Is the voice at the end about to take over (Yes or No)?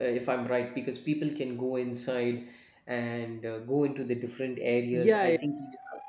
Yes